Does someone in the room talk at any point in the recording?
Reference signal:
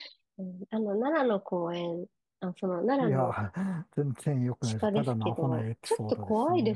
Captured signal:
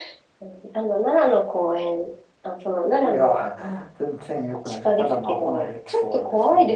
No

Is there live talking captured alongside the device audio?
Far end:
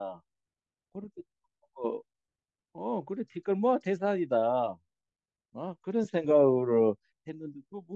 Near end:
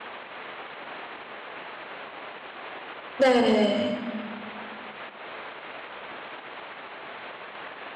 Yes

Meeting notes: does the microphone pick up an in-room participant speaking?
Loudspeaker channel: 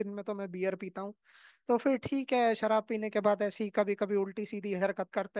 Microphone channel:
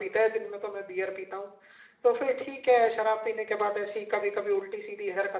No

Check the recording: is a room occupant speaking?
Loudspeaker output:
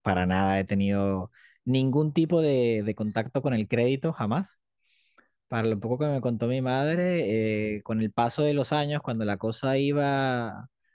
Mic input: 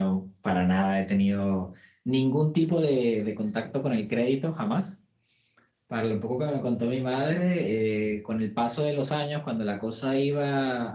No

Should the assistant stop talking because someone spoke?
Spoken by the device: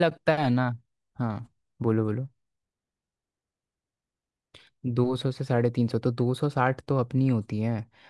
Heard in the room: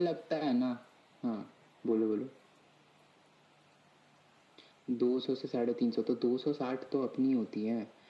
No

